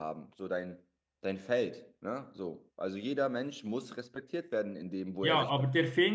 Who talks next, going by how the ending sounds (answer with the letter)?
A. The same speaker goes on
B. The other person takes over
B